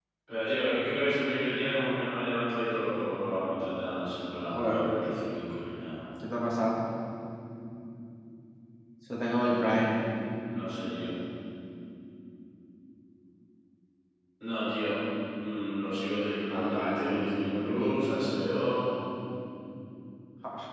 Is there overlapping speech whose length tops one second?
Yes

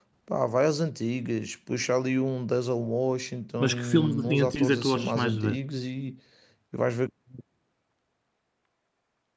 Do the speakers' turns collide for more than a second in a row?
Yes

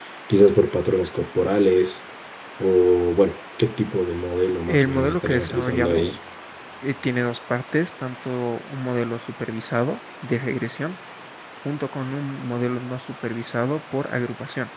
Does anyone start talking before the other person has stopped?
Yes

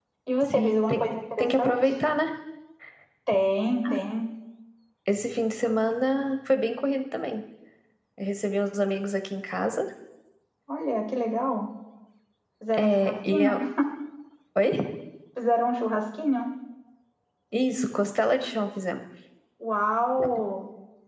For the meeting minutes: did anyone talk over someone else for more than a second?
Yes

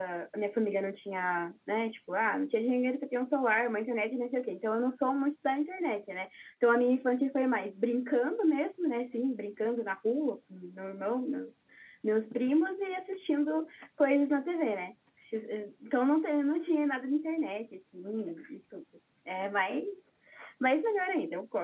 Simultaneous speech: No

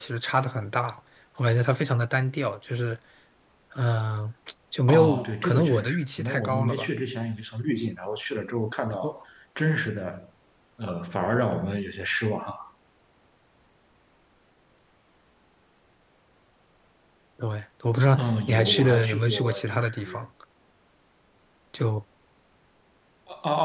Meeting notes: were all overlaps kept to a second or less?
No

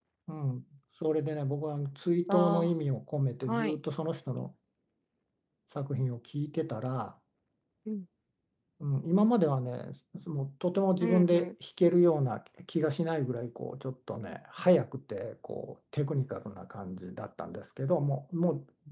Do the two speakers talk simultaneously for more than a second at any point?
No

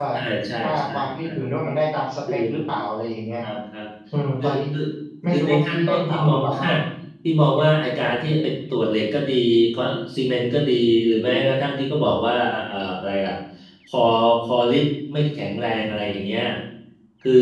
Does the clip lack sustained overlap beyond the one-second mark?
No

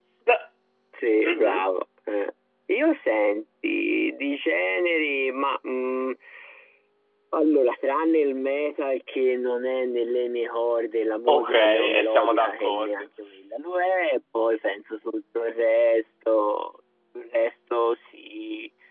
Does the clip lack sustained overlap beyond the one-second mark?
No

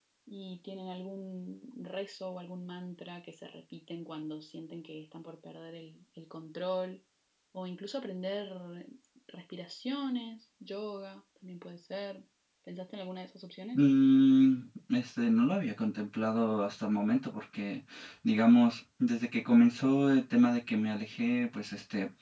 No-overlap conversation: Yes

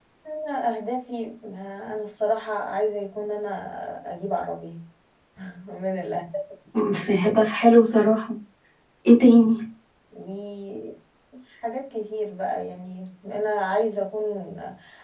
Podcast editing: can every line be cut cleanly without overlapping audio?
Yes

